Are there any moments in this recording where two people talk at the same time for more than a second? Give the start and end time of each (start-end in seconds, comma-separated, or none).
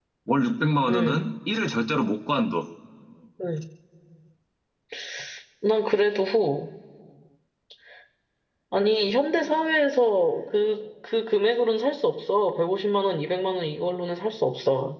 none